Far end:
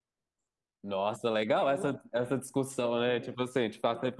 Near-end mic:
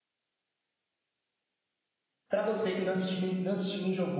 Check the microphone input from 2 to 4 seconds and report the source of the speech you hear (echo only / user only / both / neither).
user only